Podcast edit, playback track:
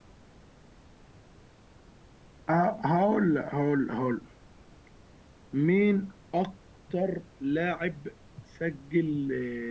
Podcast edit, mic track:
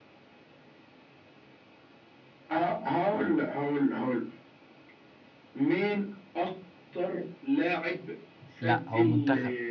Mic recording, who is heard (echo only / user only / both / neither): both